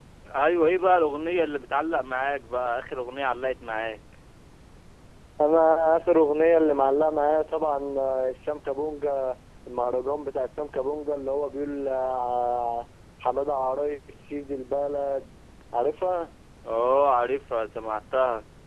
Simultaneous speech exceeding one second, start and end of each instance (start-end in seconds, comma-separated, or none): none